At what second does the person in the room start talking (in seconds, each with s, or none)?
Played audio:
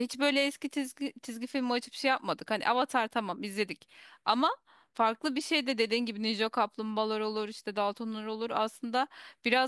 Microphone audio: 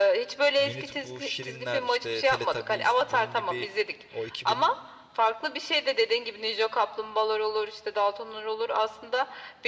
0.6 s